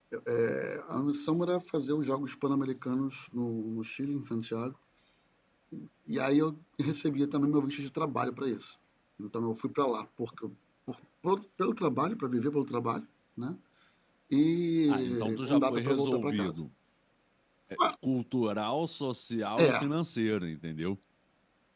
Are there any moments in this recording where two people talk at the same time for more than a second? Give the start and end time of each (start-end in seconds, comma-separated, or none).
14.9-16.6